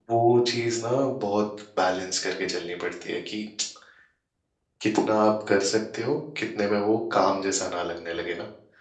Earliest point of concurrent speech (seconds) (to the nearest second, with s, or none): none